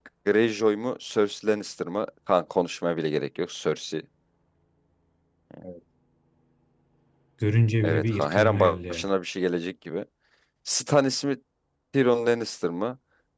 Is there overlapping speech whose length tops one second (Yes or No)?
Yes